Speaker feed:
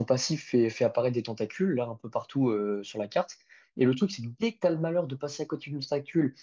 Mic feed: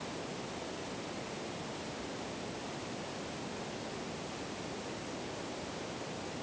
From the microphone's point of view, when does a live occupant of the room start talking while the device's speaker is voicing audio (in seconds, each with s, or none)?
none